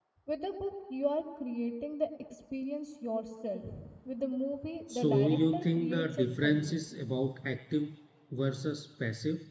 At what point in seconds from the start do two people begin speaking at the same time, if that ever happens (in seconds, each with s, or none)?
4.9 s